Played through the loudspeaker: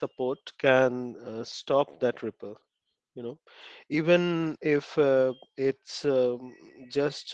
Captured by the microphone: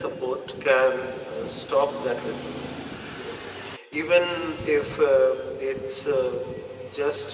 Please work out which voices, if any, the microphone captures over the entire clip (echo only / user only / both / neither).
echo only